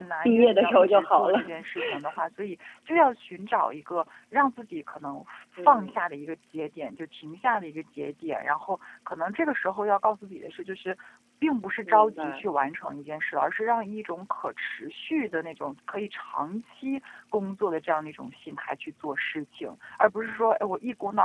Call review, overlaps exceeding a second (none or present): present